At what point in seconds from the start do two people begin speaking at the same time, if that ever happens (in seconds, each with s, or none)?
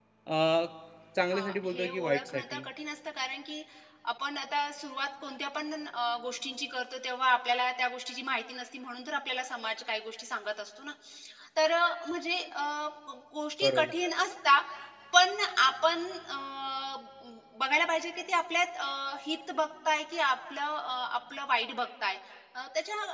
1.3 s